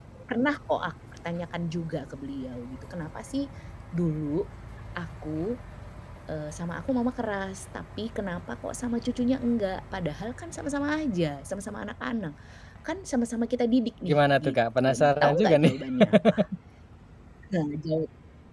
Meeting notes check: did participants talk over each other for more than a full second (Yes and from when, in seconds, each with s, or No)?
Yes, from 14.1 s